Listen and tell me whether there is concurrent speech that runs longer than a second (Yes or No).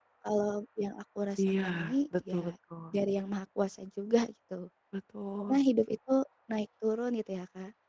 No